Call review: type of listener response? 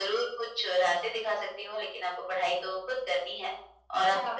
listening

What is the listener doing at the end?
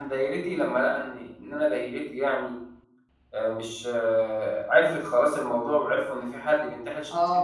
taking over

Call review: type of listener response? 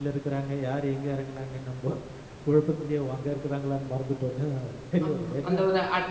taking over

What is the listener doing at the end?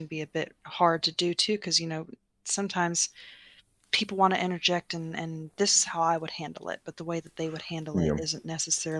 listening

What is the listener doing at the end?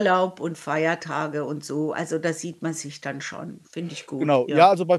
taking over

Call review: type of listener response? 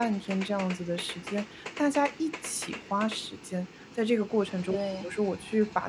listening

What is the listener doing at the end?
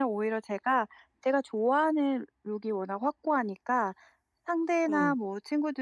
listening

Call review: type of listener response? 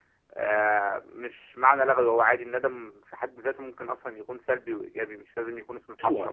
taking over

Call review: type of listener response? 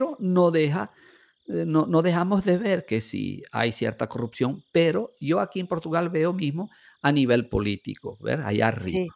listening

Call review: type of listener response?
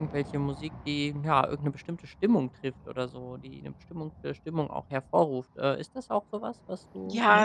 taking over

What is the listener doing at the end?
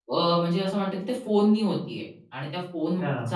listening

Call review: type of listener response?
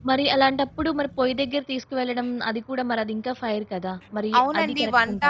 taking over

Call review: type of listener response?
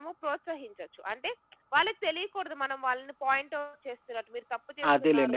taking over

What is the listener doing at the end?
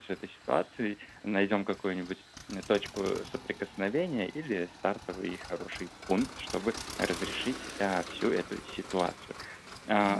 listening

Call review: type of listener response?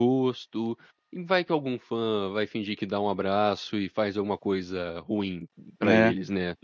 taking over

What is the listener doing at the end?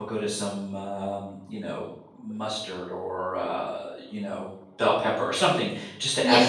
listening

